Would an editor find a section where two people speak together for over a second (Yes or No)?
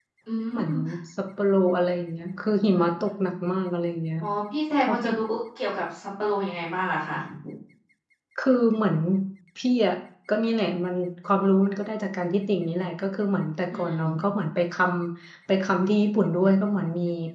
No